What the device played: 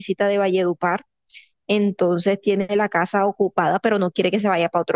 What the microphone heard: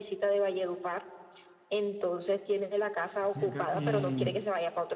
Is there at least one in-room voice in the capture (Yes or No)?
Yes